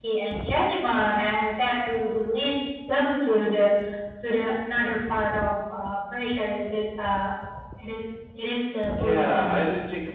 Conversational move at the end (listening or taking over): taking over